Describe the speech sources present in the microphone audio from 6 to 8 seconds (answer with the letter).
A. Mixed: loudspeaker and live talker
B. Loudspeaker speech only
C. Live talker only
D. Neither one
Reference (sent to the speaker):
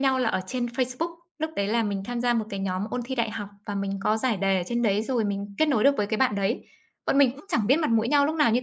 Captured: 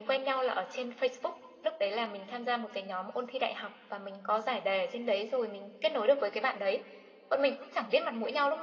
B